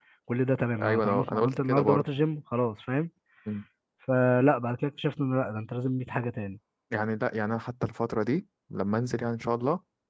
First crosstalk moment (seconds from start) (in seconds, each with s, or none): 0.8 s